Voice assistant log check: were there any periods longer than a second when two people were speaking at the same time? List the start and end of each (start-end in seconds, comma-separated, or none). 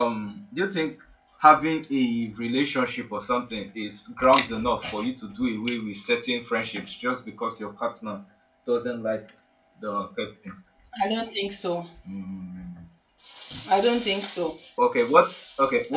none